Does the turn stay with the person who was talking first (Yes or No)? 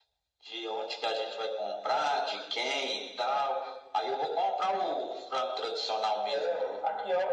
No